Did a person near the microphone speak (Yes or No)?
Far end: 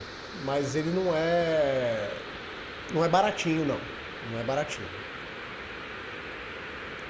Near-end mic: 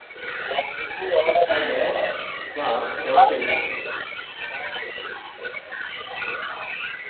Yes